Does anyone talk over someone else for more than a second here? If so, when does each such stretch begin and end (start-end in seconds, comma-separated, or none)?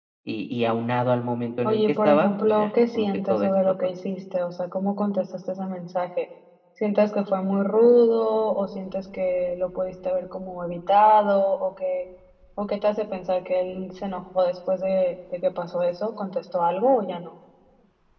1.6-3.7